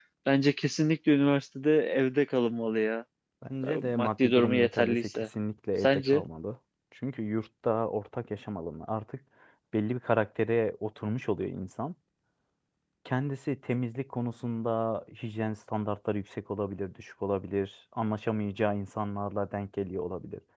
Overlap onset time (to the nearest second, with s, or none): 4 s